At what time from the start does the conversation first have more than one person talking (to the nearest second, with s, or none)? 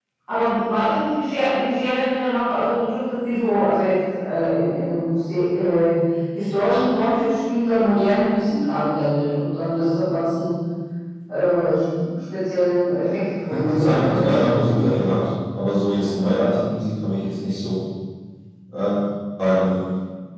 14 s